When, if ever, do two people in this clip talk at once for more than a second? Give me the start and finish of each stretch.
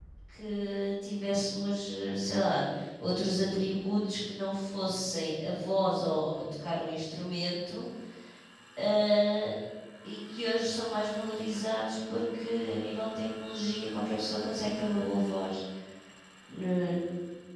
none

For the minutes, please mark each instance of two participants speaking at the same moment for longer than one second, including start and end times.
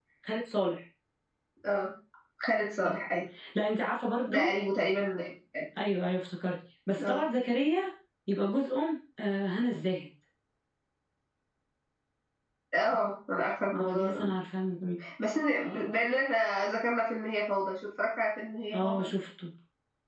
none

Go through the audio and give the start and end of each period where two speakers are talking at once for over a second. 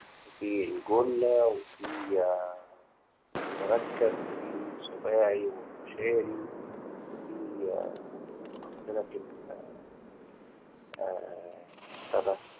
none

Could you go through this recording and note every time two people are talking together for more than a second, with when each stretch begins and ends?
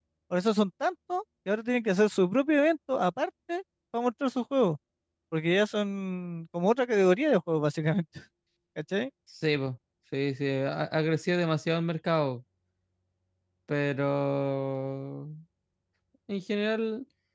none

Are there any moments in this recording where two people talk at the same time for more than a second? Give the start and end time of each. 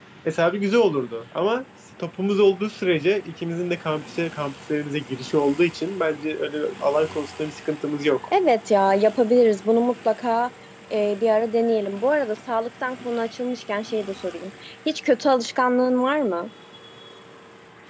none

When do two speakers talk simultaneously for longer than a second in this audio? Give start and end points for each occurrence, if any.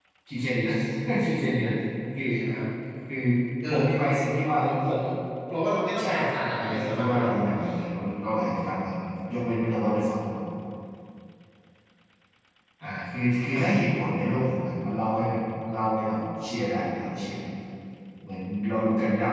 6.0-7.3

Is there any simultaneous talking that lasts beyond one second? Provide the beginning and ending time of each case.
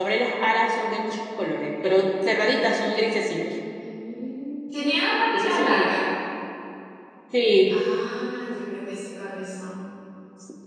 none

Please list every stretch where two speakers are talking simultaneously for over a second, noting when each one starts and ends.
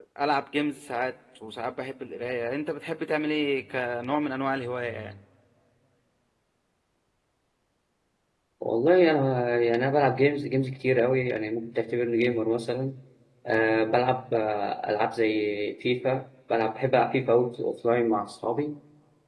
none

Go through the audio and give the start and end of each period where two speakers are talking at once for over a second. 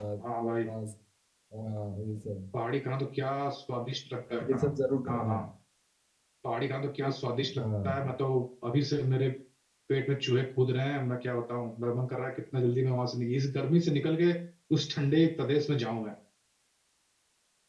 none

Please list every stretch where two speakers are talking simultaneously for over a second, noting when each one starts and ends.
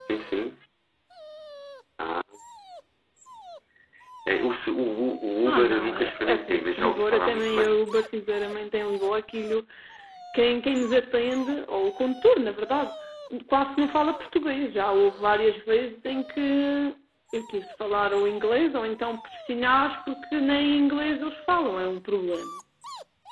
5.5-7.7

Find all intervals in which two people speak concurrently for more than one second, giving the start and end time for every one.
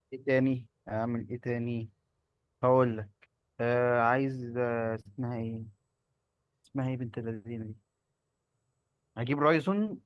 none

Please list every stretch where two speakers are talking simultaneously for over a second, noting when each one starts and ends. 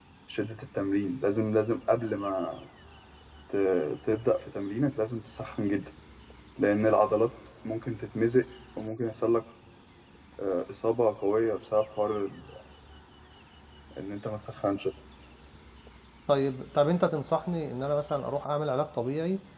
none

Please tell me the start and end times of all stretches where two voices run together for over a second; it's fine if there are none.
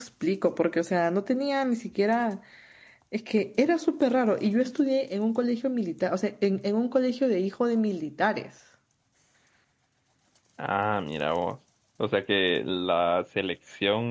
none

